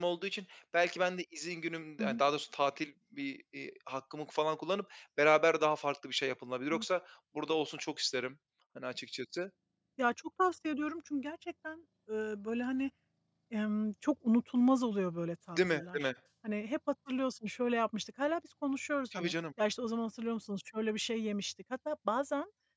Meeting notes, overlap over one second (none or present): none